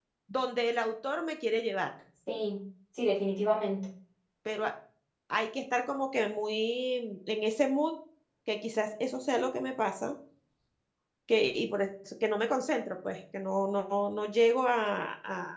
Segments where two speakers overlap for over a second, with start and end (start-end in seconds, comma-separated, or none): none